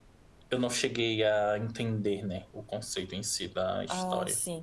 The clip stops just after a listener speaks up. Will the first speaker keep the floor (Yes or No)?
No